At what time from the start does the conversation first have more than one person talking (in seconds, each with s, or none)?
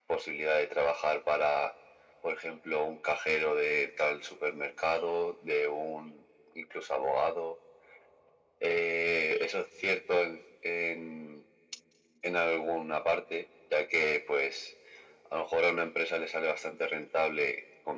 none